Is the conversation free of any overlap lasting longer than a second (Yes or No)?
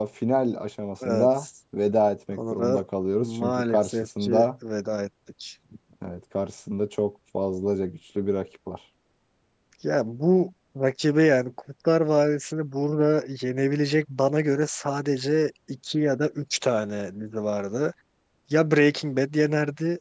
No